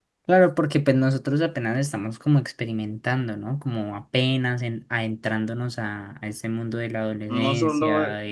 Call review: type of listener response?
taking over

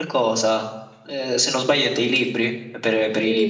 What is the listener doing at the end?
taking over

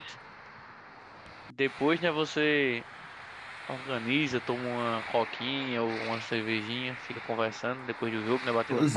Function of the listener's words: taking over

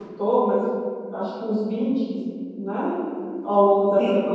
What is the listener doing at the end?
listening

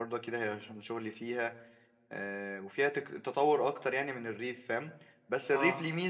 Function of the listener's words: listening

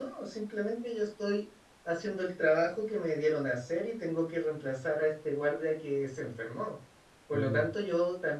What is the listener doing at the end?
listening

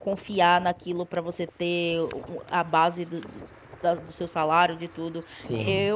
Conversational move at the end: taking over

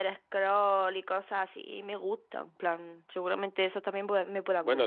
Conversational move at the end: taking over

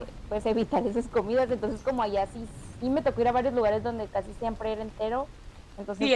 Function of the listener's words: taking over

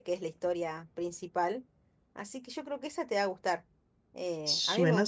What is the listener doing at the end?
taking over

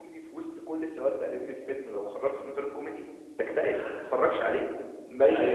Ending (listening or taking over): taking over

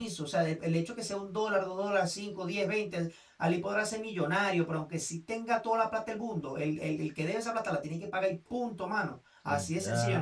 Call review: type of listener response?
listening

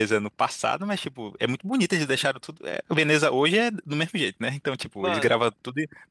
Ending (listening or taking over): listening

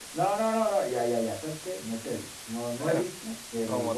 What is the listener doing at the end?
taking over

